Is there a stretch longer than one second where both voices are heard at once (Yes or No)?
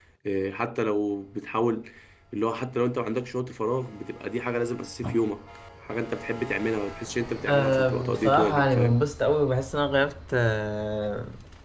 Yes